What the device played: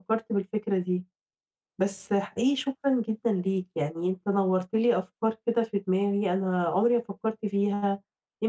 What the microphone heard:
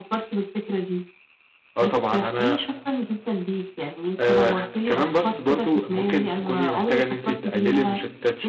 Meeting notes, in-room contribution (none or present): present